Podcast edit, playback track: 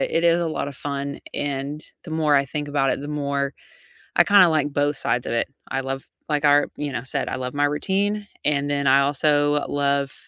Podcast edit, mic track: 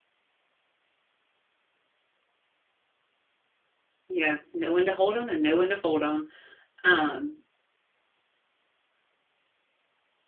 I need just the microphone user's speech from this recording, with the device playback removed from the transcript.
Yeah, know when to hold them and know when to fold them. Um,

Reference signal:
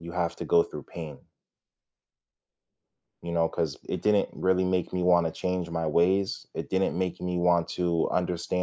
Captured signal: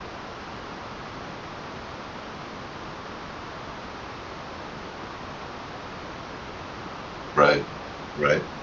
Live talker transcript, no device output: Right, right,

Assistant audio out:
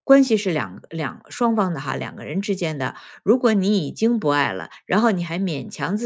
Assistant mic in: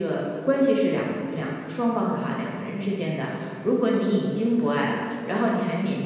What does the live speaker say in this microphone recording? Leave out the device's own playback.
none

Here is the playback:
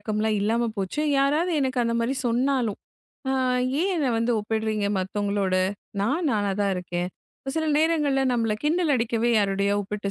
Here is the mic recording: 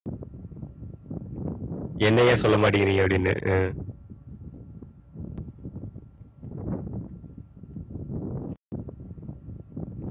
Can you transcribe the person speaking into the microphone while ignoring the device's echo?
என்ன ஏன் சொல்ல மாட்டேங்கிறீங்க அப்படின்னு. அ

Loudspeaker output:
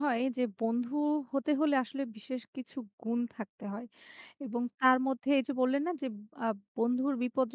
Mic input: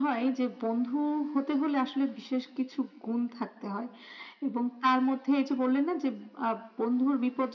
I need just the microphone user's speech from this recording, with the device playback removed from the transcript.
none

